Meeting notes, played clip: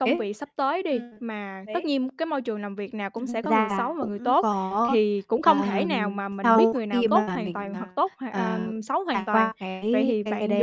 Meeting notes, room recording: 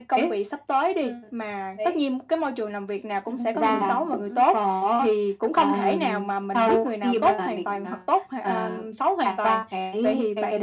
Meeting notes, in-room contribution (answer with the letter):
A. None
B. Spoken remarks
B